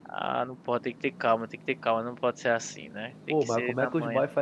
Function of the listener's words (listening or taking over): taking over